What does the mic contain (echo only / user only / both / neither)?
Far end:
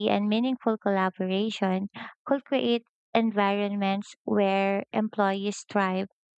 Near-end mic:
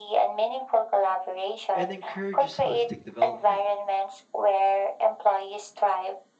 both